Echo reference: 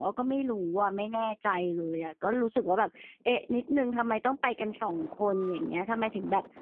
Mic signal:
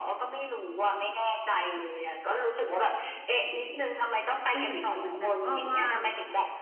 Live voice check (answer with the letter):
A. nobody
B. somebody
B